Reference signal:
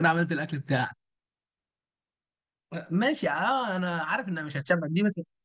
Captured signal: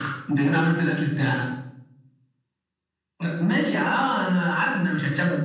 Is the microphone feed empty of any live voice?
Yes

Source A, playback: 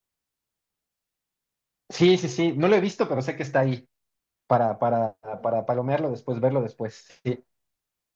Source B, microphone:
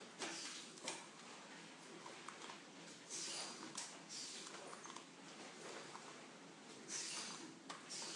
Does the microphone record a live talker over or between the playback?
No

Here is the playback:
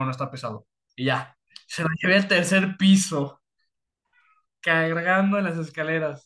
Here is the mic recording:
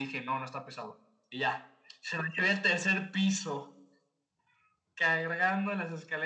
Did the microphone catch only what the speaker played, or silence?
Yes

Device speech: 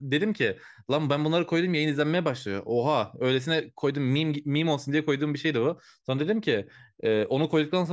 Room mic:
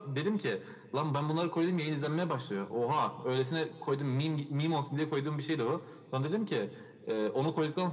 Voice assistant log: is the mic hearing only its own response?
Yes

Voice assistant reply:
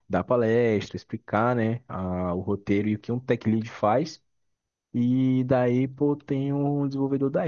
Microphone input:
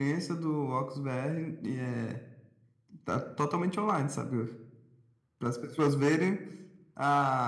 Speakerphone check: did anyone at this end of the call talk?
Yes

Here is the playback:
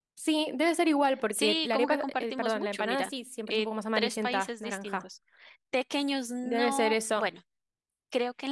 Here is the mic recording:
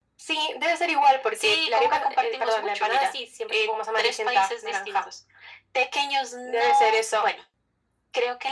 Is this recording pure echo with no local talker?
Yes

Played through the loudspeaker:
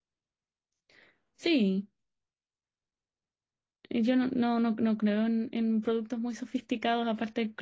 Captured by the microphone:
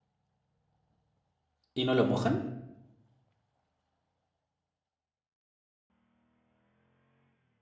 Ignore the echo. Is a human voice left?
Yes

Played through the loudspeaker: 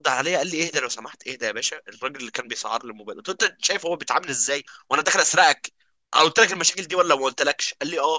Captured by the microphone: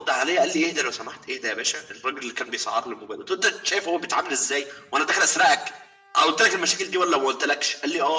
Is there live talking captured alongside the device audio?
No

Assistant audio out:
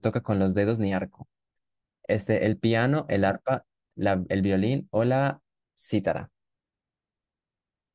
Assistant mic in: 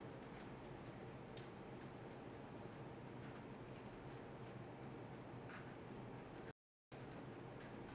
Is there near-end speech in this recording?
No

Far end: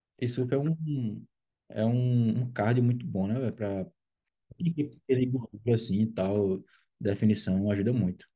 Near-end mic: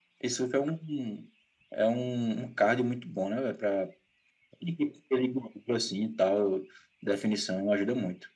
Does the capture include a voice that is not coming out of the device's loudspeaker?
No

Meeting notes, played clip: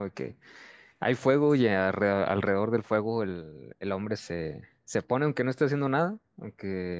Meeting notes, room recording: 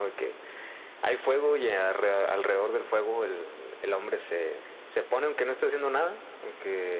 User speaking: No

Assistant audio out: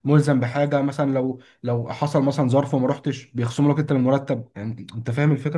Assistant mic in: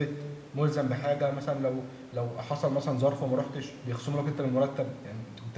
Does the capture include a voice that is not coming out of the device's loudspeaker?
No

